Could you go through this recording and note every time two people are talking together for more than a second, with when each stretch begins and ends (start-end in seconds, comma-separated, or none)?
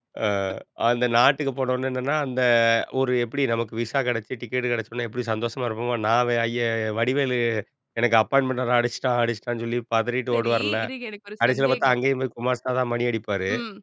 none